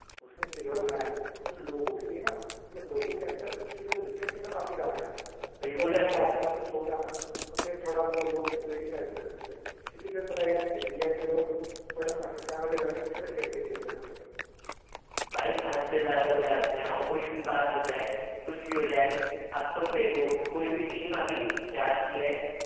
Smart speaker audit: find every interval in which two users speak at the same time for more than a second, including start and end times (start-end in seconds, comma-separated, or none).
none